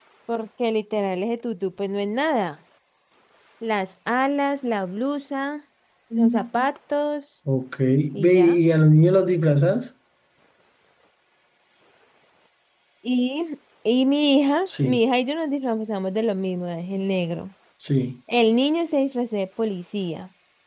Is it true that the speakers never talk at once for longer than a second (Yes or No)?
Yes